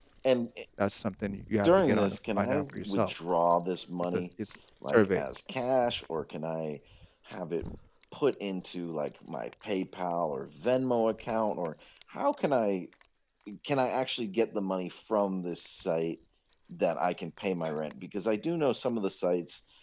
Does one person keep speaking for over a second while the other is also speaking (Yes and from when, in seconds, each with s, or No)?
Yes, from 1.6 s